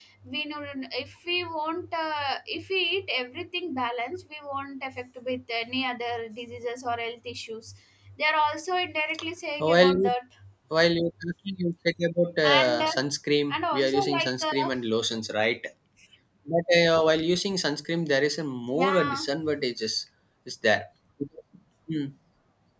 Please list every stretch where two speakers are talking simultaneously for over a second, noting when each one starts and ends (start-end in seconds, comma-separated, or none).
13.5-14.7